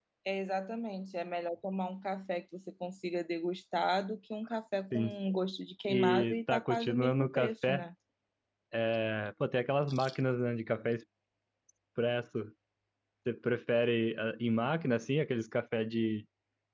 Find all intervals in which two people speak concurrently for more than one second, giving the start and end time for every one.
5.9-7.8

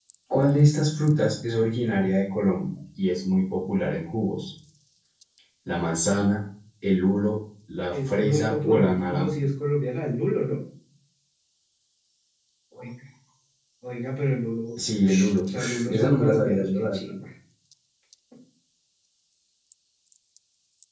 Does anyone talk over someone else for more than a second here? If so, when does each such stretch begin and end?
7.9-9.3, 15.1-17.1

